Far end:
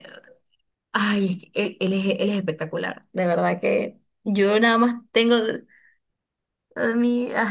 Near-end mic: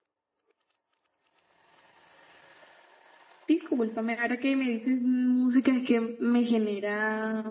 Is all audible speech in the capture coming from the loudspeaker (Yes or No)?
No